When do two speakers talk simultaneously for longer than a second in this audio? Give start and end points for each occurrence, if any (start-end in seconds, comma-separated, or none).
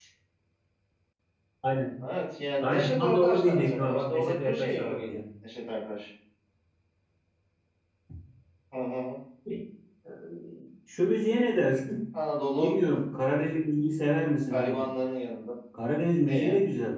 2.6-5.2